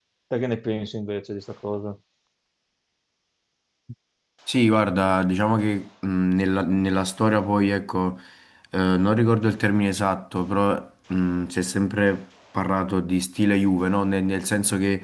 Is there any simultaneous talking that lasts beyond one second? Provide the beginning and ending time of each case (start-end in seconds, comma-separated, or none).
none